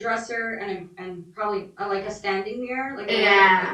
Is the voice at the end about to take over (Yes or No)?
Yes